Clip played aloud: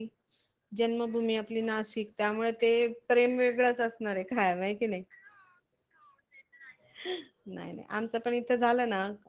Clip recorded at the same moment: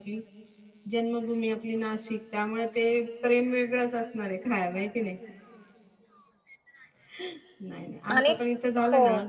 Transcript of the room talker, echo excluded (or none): आणि हो